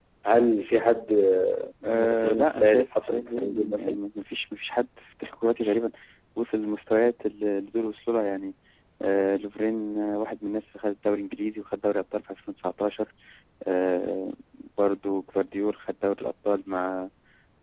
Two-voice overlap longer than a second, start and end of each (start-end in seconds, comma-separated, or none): 1.8-4.0